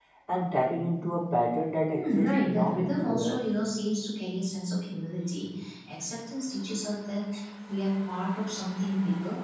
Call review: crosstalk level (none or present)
present